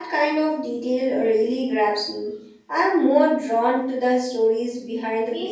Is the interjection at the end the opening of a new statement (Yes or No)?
Yes